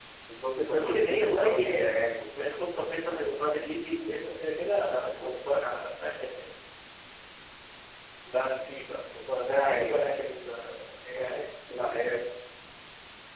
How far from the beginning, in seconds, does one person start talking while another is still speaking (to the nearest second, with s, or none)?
1 s